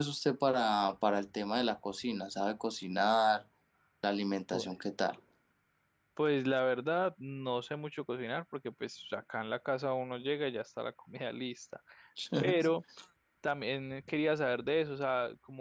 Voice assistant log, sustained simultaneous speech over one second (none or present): none